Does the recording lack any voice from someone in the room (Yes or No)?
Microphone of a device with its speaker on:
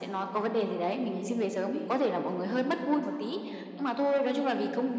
No